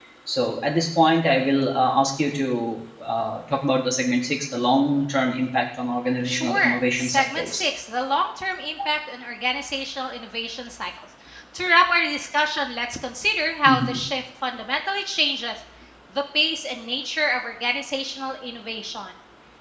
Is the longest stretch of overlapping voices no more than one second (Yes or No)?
No